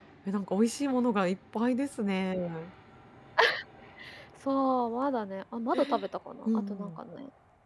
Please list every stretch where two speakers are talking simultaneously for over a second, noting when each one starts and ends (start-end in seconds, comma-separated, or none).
none